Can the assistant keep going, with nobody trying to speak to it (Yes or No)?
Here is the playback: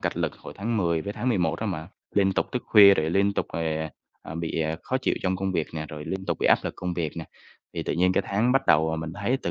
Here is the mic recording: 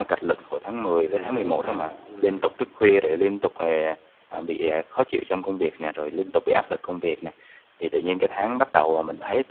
No